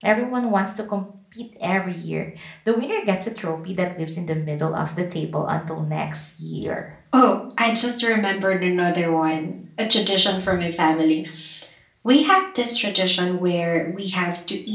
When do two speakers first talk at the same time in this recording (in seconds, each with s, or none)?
none